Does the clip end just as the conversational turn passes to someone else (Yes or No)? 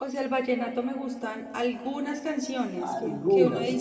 No